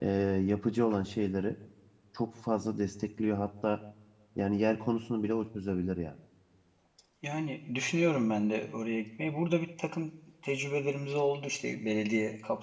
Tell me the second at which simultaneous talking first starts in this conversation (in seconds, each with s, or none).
none